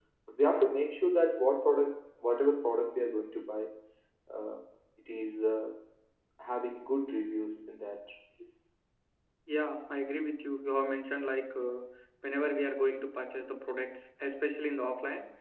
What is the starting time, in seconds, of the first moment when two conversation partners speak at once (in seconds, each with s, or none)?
none